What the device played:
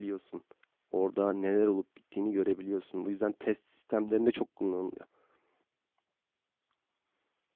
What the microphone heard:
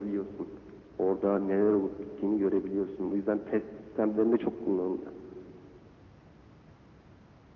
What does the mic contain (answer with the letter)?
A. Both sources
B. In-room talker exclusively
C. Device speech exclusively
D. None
C